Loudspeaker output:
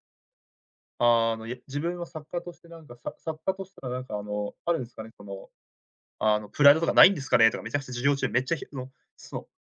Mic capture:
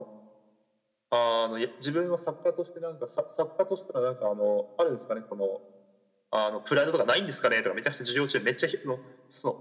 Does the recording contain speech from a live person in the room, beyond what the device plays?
No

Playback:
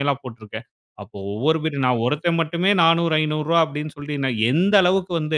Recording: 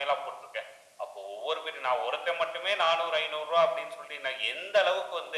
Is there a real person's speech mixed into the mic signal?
No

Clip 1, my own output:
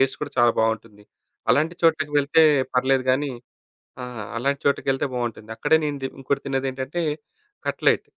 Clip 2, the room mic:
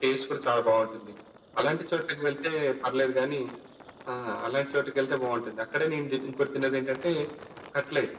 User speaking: No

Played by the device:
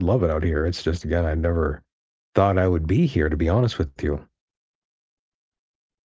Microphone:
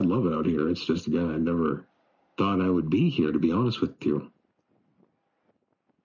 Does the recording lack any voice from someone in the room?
Yes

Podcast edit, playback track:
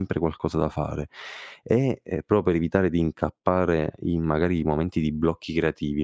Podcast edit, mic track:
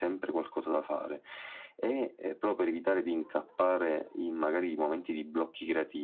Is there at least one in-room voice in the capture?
No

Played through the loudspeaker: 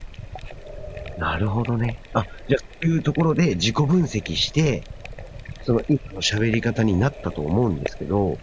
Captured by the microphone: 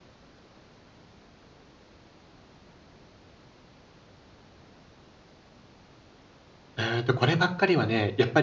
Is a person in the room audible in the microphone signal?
Yes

